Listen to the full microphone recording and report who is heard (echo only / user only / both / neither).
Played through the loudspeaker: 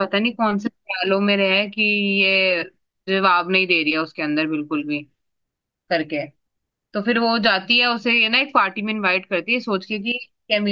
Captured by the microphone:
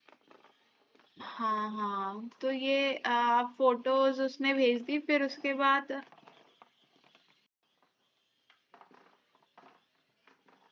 user only